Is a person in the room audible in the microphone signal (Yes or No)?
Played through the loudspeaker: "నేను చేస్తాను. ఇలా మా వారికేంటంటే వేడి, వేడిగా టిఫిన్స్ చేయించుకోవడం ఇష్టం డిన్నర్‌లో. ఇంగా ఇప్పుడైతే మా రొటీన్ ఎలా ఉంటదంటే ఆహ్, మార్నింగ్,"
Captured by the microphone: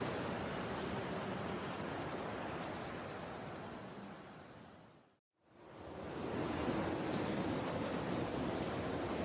No